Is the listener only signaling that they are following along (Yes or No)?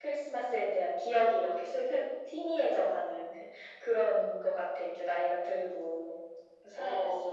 No